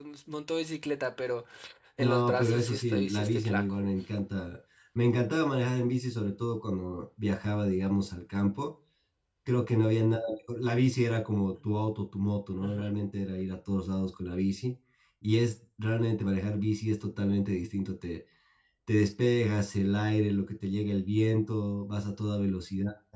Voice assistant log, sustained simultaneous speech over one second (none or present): present